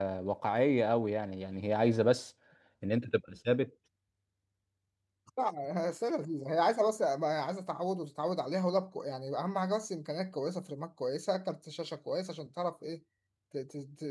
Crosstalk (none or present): none